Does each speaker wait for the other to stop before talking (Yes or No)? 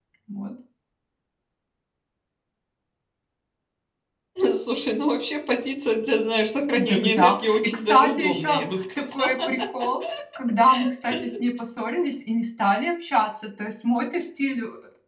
No